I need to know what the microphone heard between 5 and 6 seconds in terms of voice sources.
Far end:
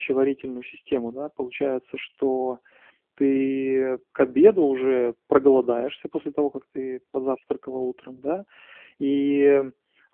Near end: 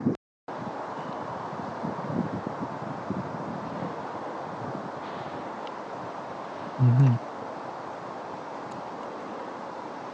neither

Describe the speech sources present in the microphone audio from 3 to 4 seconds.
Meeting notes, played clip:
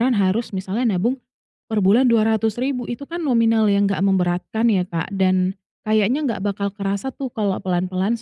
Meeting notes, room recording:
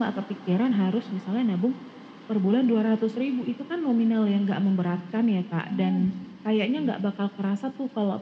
echo only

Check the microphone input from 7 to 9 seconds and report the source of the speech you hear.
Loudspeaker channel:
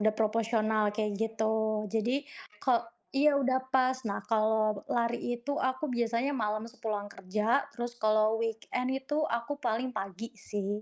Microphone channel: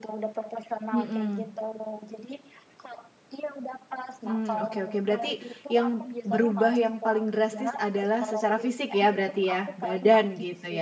both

